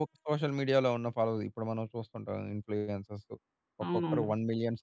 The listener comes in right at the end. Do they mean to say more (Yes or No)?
No